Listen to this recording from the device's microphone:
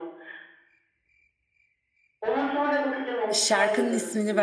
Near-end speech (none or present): present